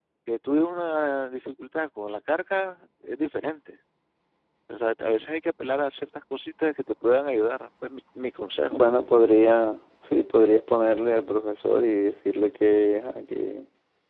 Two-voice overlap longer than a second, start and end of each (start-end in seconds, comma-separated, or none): none